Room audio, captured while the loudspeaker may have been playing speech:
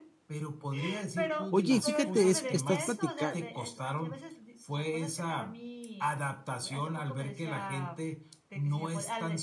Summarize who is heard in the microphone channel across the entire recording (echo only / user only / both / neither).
both